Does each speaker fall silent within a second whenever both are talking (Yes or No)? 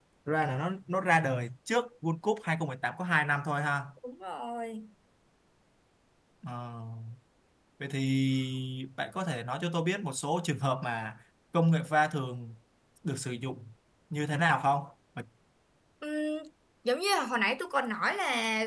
Yes